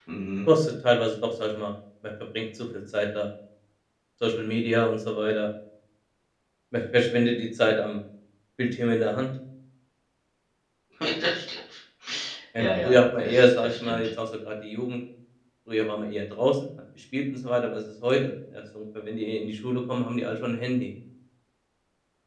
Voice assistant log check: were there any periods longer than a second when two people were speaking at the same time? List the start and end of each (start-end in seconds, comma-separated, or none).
12.6-14.0